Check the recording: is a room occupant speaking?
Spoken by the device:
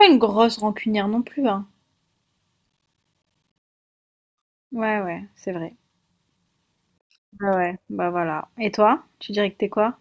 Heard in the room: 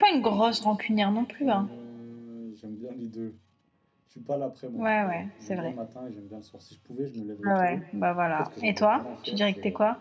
Yes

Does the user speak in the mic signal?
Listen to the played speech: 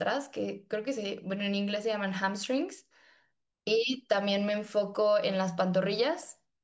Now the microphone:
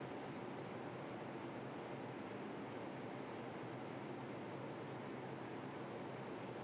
No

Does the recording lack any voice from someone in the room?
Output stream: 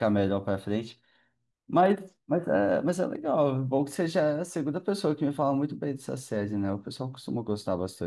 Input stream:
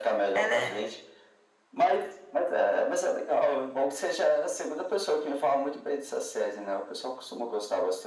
No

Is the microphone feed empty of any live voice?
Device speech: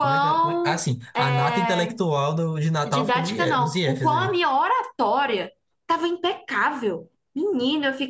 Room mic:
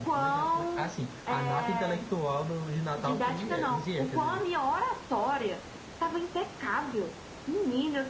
Yes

